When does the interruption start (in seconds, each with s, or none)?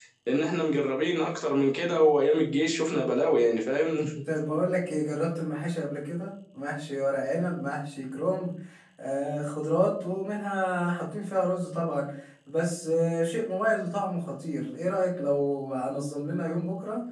none